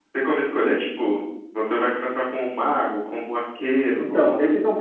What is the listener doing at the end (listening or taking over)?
taking over